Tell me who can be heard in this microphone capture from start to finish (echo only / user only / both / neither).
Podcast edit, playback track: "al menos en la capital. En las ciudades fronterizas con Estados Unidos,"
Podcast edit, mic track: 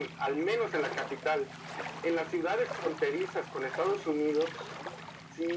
echo only